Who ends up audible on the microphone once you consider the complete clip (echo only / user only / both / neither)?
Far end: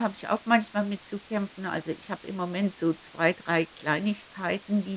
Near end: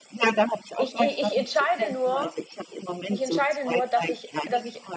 both